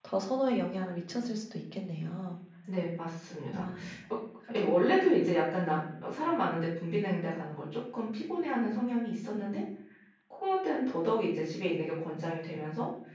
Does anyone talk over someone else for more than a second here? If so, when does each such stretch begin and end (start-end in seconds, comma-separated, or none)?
none